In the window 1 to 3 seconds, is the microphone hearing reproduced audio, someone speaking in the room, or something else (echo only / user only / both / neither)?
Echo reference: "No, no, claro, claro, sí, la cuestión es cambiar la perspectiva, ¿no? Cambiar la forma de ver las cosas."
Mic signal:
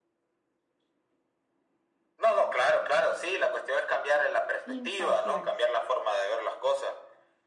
echo only